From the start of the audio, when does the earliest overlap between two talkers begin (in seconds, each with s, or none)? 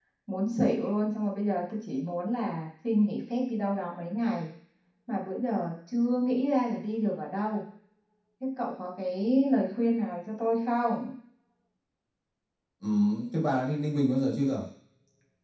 none